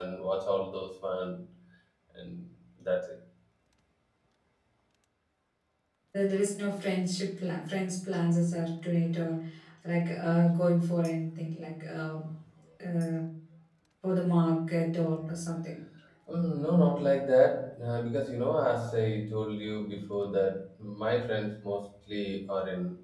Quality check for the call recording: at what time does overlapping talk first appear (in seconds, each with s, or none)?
none